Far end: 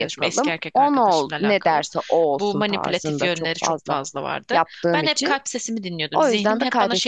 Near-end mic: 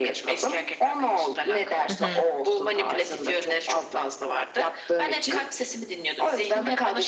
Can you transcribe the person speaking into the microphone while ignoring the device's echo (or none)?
Hı hı.